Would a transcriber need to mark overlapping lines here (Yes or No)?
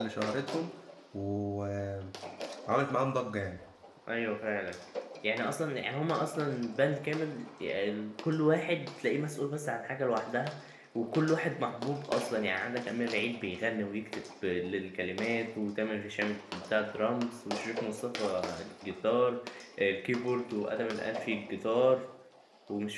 No